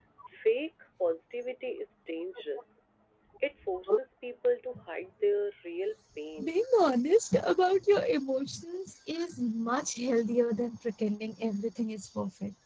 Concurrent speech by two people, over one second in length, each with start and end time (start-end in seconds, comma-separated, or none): none